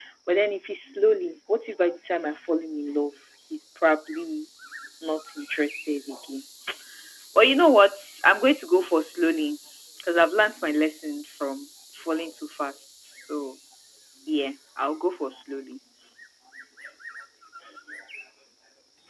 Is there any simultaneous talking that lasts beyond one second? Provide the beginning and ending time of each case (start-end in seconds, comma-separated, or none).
none